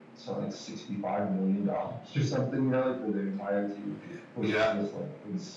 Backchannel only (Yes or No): Yes